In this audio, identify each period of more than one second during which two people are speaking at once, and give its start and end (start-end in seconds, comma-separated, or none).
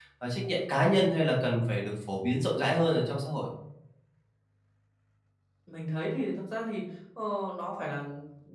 none